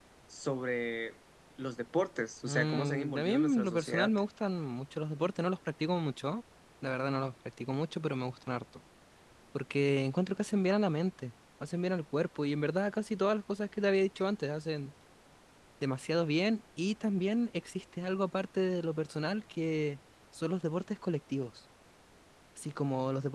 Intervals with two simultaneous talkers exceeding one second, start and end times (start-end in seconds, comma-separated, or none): 2.5-4.1